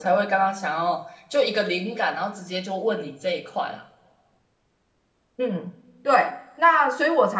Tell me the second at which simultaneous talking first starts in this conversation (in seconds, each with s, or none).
none